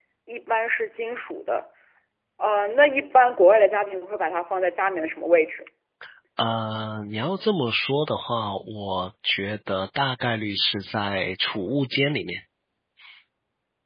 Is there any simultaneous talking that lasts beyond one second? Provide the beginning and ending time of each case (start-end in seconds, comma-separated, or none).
none